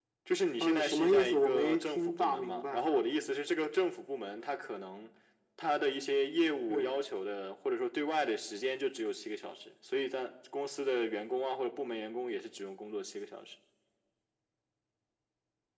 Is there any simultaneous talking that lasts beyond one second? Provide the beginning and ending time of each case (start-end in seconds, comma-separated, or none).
0.6-2.9